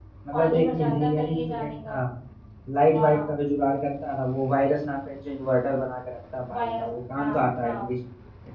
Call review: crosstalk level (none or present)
present